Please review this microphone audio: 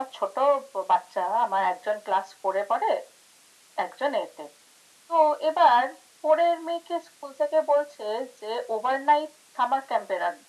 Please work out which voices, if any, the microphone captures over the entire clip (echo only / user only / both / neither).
echo only